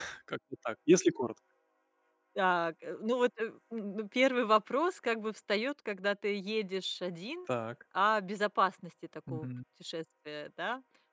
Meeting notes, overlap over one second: none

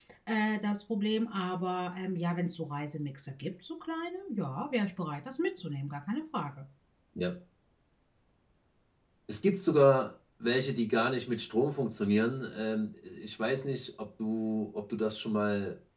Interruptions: none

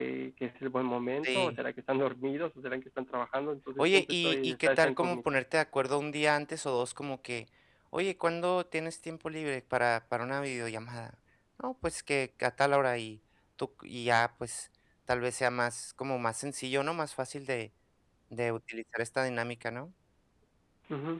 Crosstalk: present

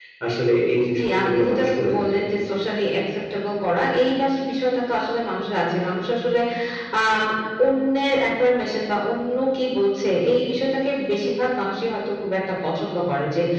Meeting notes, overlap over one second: present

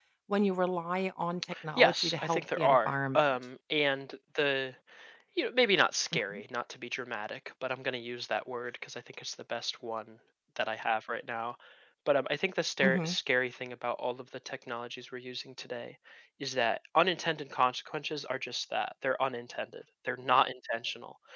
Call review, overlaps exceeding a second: present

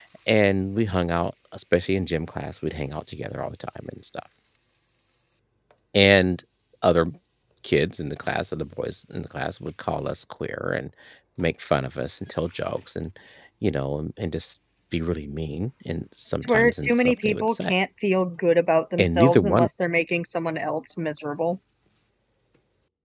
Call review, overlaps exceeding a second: present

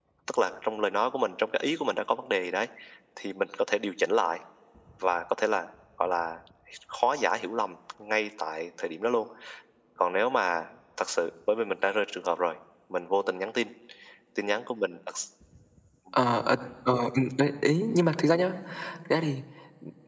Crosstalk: none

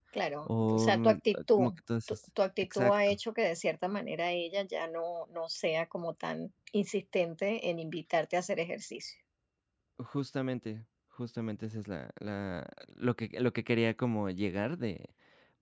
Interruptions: present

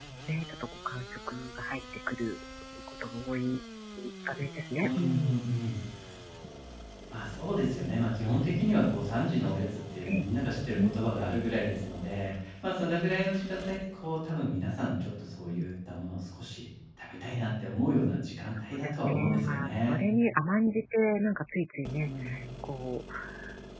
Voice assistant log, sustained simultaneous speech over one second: present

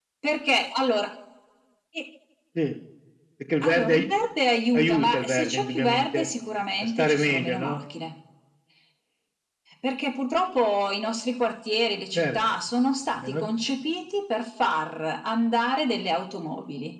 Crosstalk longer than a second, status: present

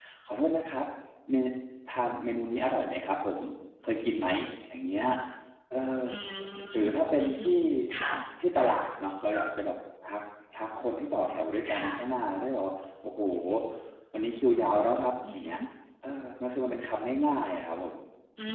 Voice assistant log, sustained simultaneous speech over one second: none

